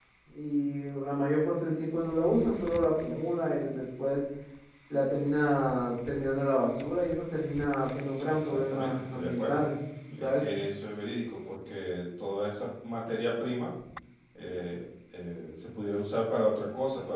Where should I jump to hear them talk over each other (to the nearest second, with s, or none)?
8 s